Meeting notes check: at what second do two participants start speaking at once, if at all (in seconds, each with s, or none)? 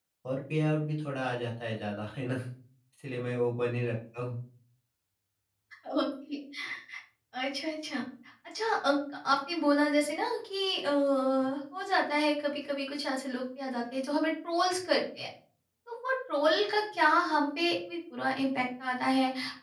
none